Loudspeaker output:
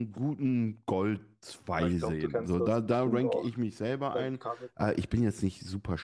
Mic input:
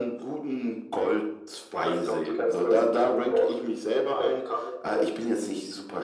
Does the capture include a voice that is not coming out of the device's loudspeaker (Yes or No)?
No